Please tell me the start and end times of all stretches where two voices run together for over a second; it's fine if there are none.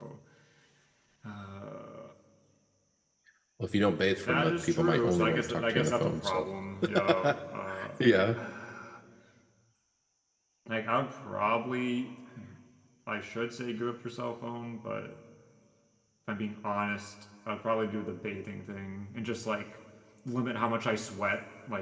4.3-6.4

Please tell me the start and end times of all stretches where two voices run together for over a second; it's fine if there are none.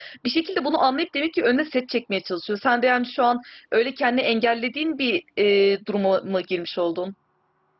none

